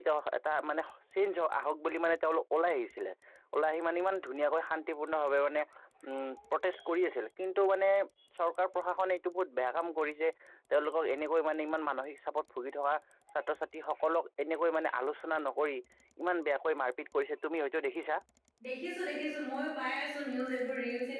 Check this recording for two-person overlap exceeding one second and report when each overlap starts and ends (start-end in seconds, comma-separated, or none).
none